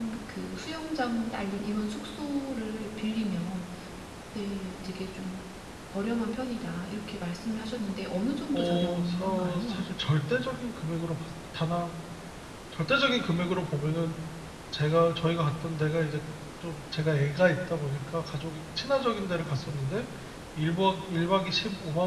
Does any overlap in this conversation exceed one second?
Yes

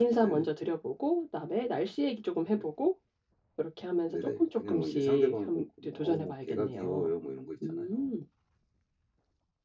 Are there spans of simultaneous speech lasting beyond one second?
Yes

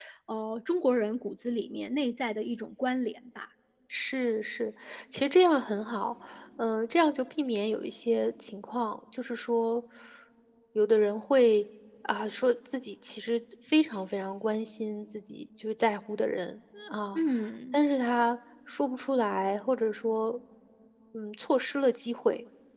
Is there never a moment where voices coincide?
Yes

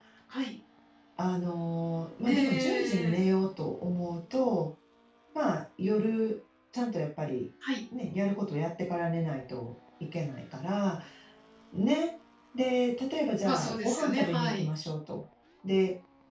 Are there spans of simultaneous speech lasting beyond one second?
Yes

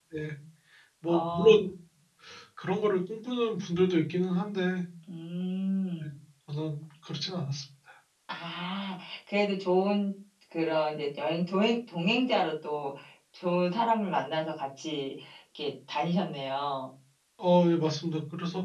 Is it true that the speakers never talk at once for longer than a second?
Yes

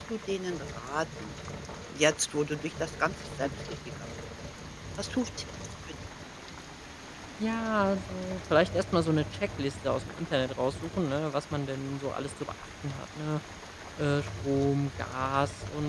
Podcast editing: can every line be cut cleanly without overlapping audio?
Yes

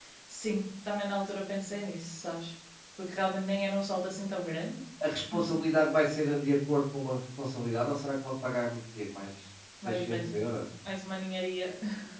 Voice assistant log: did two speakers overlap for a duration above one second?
No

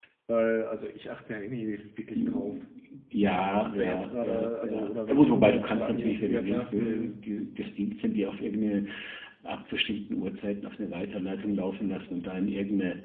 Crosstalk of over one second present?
Yes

